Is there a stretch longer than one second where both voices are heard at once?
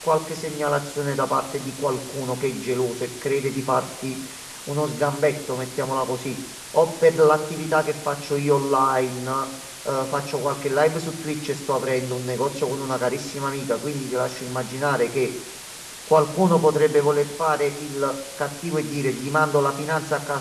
No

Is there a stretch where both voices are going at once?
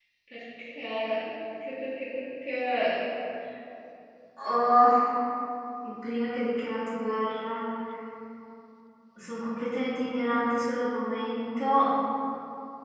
No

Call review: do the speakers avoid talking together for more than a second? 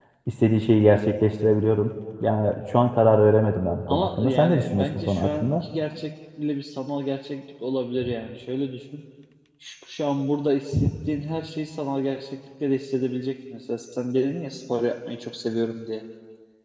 No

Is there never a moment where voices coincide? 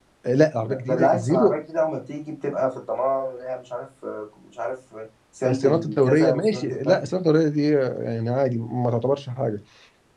No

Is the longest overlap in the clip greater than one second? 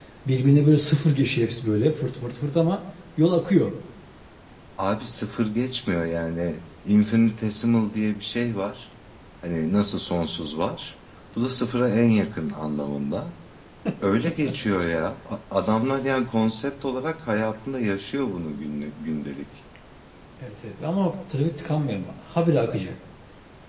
No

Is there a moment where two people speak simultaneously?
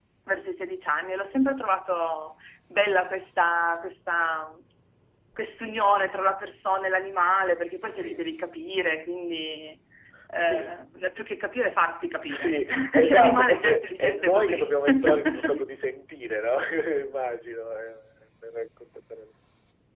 Yes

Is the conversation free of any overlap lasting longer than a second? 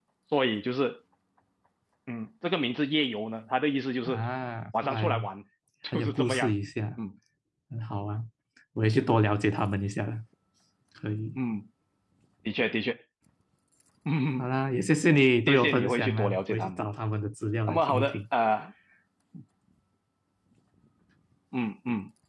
No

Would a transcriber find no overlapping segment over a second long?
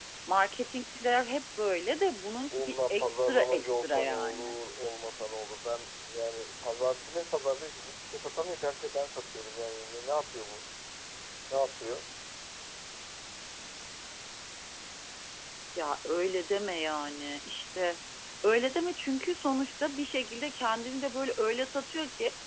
No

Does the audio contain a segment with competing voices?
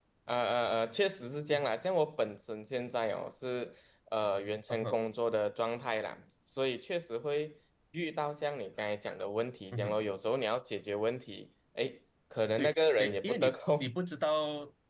Yes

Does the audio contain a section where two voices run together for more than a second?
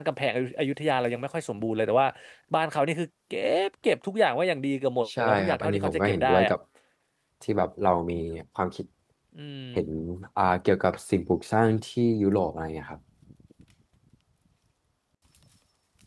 Yes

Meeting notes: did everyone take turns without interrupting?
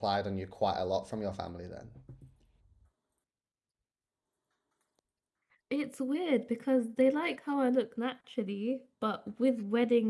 Yes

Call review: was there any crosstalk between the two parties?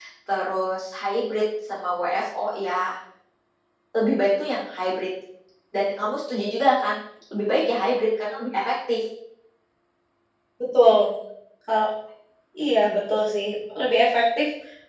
No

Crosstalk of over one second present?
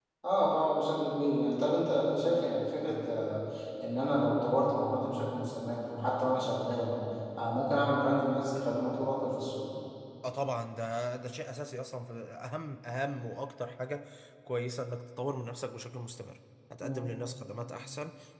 No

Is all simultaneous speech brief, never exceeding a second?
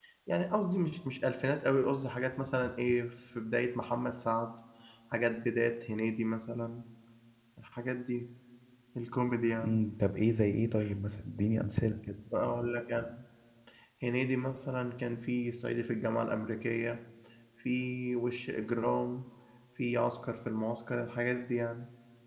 Yes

